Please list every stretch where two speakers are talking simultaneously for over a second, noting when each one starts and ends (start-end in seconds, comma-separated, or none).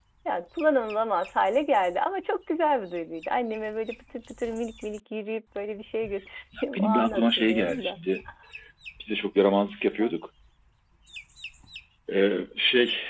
6.7-8.0